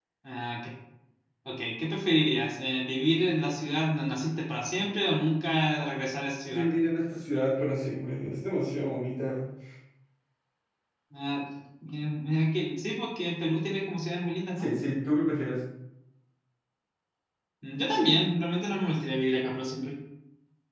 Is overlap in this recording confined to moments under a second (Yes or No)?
Yes